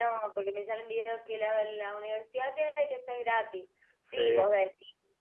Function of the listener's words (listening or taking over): listening